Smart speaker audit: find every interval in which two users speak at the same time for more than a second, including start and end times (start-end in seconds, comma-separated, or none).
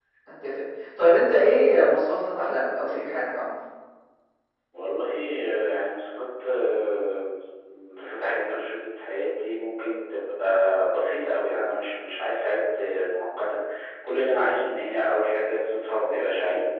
none